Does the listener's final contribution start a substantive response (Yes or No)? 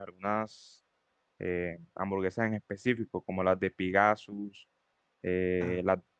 No